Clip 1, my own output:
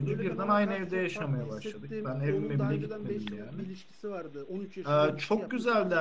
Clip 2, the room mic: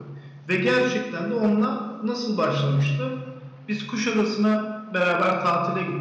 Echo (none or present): none